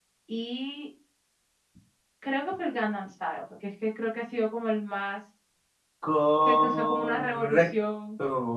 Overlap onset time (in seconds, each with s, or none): 6.4 s